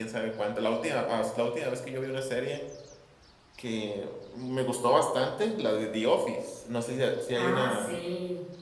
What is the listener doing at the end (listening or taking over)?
taking over